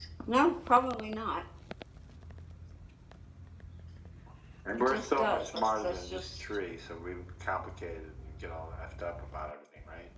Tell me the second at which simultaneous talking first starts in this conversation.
4.8 s

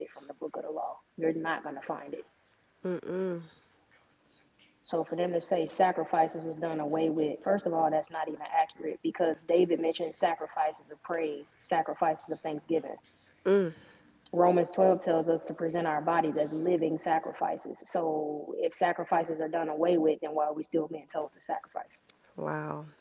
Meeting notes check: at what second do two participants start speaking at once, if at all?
none

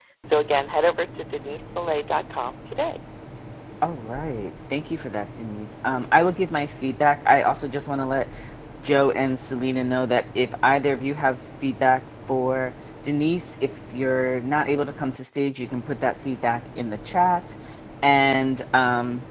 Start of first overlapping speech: none

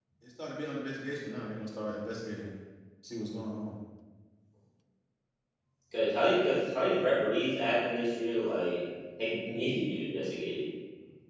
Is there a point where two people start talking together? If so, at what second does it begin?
none

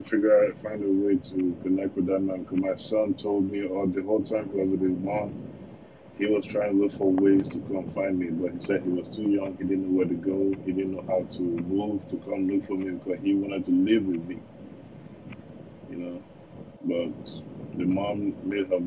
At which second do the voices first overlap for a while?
none

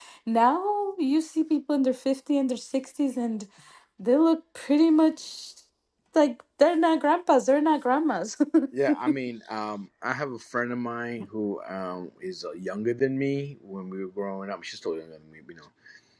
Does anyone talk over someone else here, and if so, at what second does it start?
none

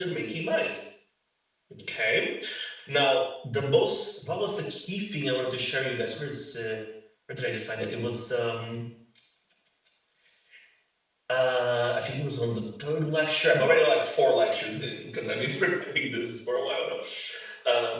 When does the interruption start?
none

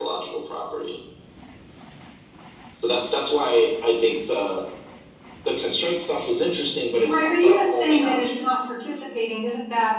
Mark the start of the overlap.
7.0 s

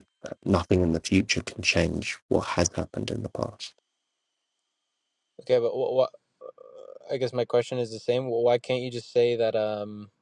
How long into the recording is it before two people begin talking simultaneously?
none

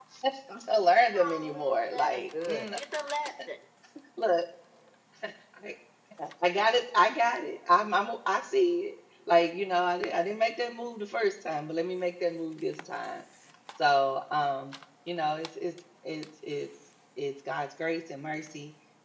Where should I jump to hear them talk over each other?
1.0 s

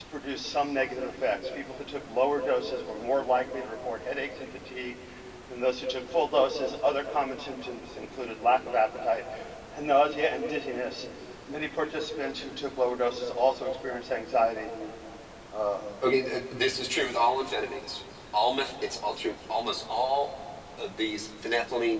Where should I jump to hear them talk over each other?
none

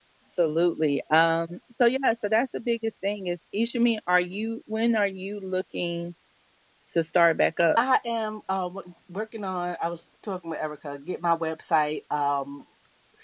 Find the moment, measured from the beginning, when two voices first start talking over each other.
none

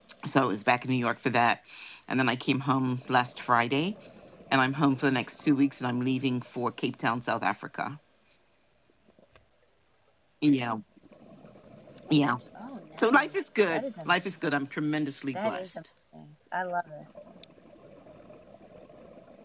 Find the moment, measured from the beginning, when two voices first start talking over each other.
13.0 s

